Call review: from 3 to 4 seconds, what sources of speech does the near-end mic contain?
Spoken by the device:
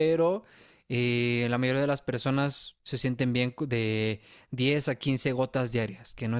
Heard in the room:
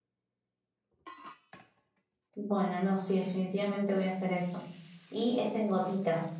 user only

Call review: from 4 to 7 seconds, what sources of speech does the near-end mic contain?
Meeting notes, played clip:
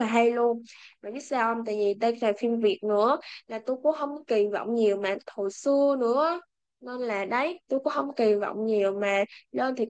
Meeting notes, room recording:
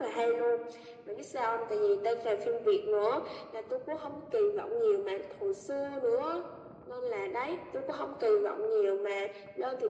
echo only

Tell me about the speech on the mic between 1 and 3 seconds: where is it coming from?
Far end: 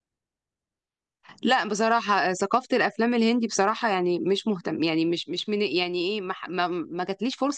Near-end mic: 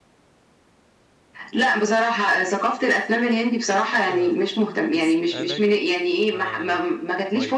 echo only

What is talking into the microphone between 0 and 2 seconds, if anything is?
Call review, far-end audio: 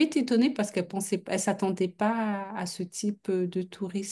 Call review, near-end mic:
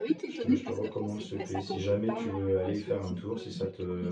both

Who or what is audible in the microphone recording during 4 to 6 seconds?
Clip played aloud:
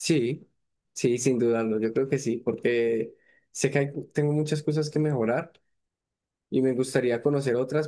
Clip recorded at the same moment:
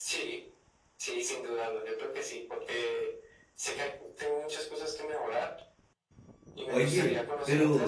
echo only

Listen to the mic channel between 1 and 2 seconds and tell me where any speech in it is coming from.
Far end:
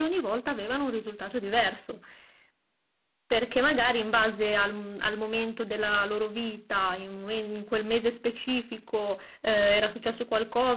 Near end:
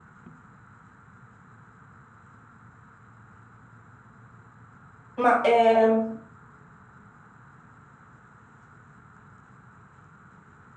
neither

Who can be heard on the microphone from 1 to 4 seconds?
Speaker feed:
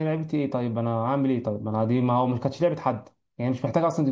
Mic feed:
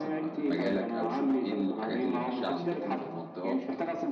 both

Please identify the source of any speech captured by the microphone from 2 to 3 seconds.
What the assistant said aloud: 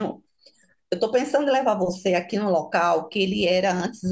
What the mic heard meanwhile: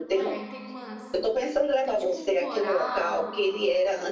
both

